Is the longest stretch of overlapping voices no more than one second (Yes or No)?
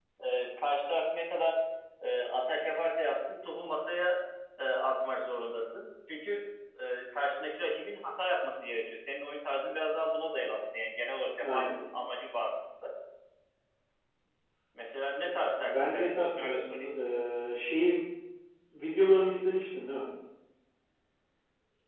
No